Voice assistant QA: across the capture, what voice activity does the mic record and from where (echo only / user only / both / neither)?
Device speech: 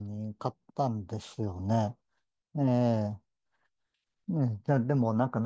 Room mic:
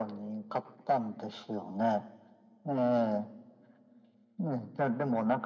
echo only